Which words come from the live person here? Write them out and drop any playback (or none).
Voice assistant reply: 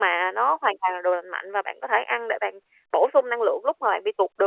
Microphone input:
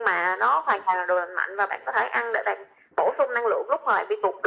none